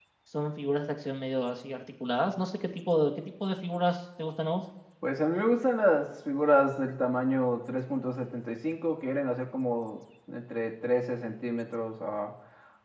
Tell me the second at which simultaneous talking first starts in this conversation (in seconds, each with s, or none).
none